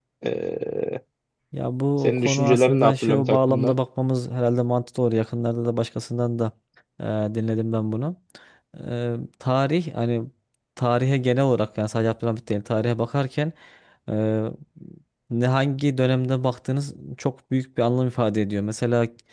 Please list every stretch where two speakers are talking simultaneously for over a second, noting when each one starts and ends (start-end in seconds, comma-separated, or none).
2.0-3.8